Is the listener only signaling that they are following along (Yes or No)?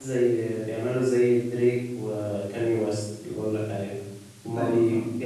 Yes